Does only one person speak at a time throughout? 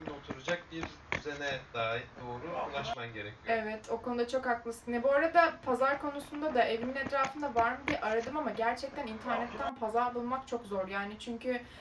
Yes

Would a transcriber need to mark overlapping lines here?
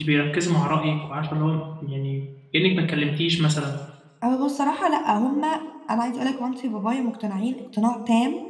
No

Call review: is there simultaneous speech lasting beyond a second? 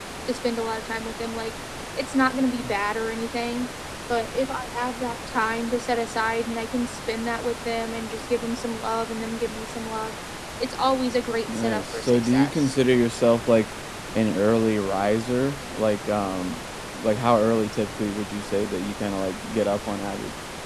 Yes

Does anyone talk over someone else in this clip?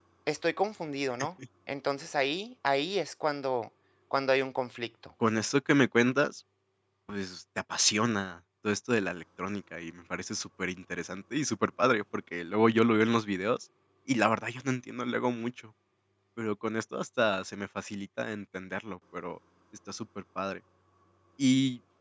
No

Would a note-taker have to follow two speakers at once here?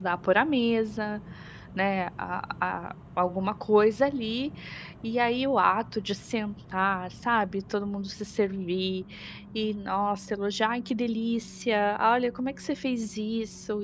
No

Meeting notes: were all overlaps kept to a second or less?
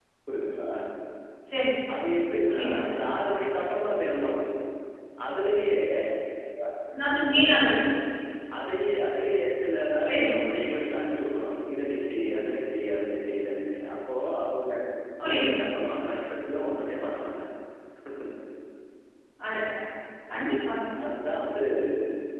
Yes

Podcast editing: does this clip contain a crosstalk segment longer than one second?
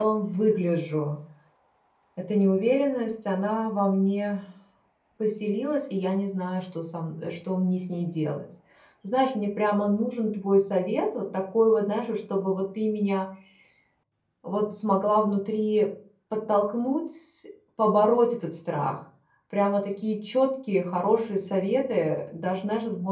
No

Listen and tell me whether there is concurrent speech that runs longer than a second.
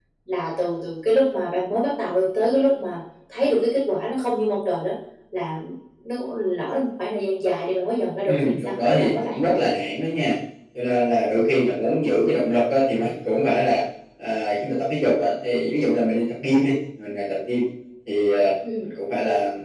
Yes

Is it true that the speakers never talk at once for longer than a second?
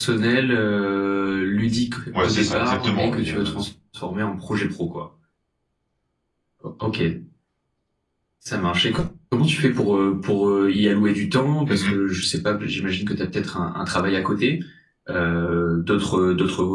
No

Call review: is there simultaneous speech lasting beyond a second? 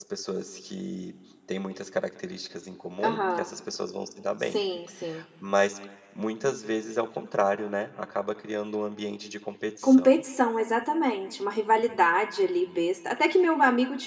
No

